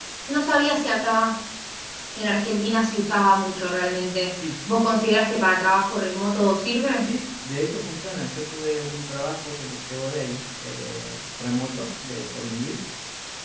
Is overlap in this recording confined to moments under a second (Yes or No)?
Yes